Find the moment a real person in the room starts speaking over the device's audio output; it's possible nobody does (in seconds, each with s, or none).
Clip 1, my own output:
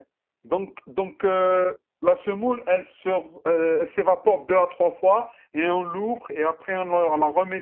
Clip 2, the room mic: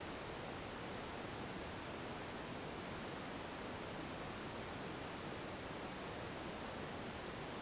none